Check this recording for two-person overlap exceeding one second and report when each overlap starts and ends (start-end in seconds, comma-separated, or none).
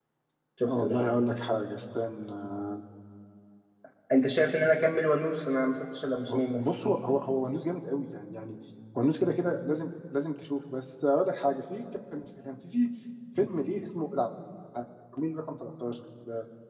none